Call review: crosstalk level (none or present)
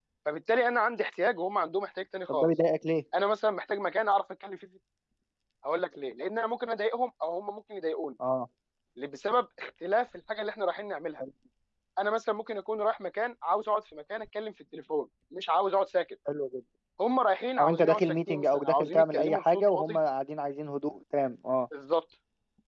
present